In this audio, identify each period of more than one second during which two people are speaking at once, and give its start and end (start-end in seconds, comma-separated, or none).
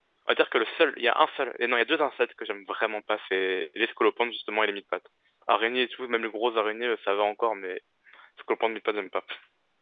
none